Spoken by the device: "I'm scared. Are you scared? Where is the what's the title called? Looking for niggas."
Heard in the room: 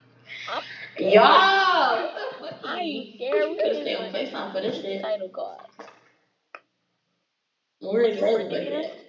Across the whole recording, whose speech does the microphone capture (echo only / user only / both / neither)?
both